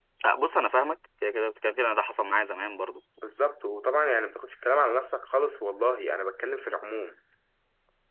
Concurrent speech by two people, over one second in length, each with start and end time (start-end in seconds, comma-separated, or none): none